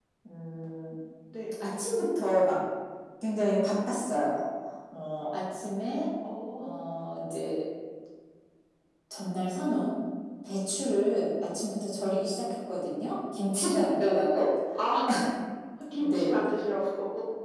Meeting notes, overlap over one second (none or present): none